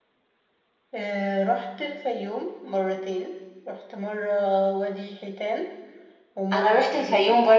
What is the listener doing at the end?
taking over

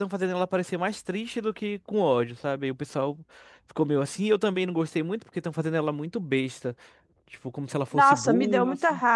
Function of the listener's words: taking over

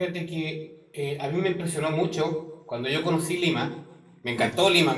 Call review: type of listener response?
listening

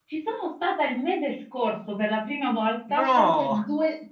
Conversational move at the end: listening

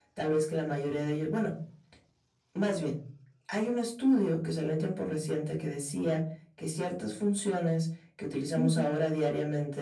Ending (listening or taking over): listening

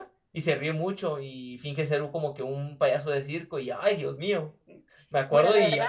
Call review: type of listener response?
taking over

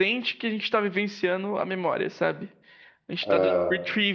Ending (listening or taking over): listening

